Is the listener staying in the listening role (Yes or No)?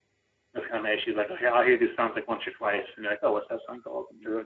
No